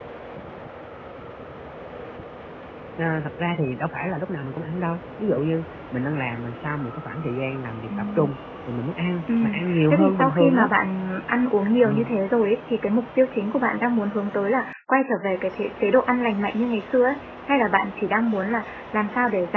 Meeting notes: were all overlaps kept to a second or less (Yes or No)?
No